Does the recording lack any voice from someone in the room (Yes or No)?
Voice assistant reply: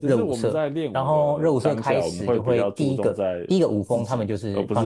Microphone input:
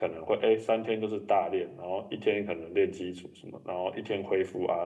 No